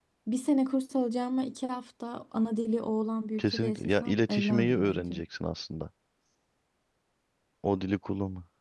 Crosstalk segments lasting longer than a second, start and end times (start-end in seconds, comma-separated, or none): 3.4-5.2